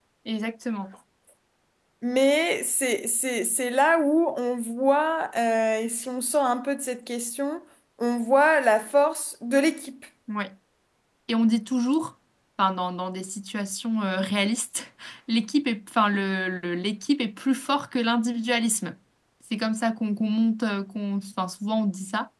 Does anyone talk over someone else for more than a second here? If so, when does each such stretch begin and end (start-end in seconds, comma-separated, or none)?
none